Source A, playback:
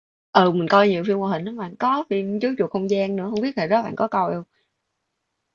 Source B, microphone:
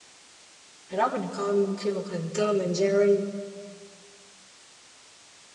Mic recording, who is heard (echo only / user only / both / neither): user only